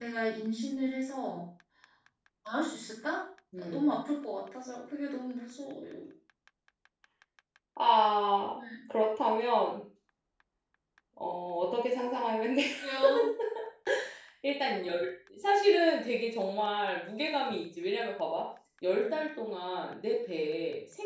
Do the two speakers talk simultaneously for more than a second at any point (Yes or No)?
No